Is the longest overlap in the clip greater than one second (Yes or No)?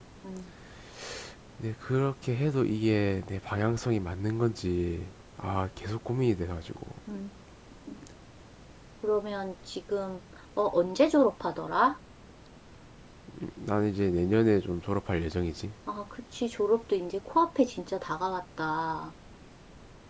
No